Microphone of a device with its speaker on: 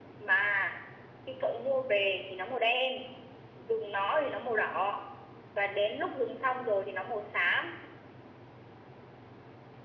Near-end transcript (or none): none